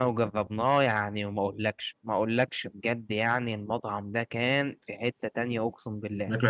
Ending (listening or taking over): listening